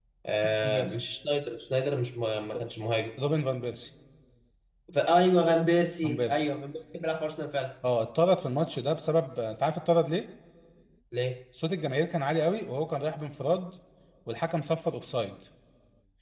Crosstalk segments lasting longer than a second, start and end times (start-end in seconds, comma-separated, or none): none